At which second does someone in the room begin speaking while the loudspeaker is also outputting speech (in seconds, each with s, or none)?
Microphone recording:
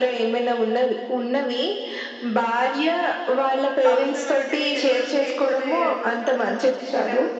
3.9 s